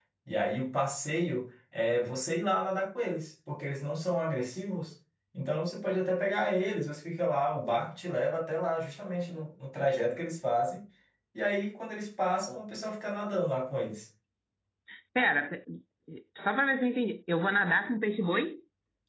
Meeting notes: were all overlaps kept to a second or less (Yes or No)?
Yes